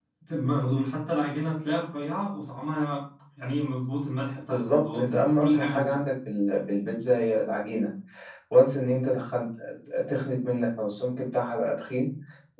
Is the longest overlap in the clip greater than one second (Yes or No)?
Yes